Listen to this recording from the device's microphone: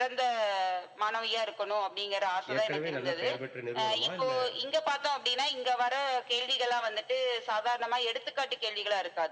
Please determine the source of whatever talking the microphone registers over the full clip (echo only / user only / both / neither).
both